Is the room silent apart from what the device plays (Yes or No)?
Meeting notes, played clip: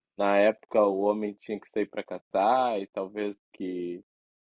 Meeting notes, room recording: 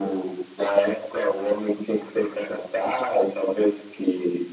Yes